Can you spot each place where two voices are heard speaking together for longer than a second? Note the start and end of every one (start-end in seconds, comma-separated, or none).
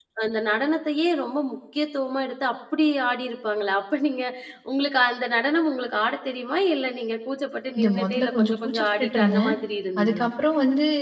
7.8-9.5